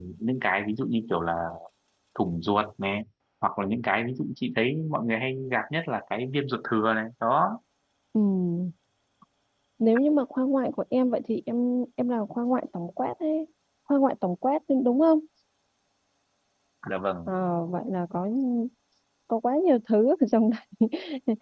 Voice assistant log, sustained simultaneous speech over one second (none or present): none